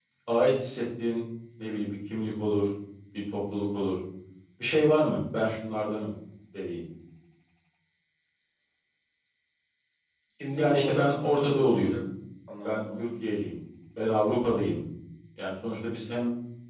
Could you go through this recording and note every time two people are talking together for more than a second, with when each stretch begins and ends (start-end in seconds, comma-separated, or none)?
10.6-12.0